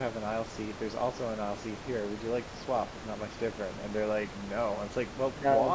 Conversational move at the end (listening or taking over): listening